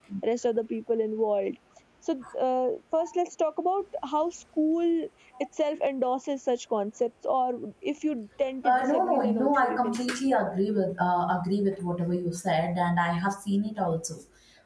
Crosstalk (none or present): present